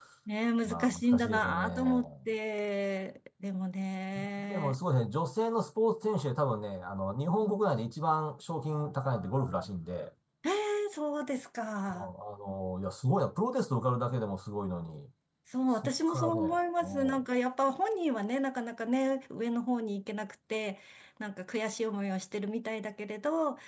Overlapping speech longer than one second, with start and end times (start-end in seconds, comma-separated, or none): 0.7-2.1, 15.8-17.2